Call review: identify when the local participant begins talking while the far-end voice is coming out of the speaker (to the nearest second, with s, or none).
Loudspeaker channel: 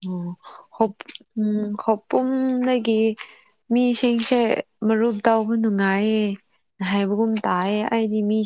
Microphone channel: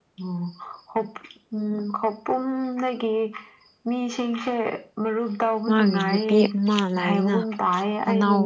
6 s